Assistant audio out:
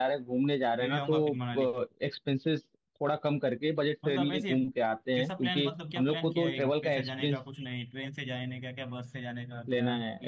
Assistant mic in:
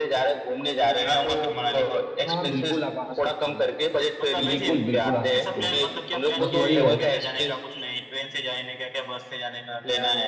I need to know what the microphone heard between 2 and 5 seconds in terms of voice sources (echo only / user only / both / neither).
both